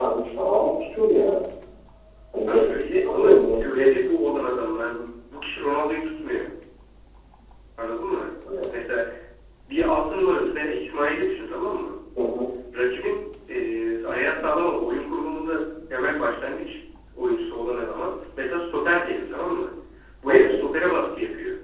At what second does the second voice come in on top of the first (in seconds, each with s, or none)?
2.5 s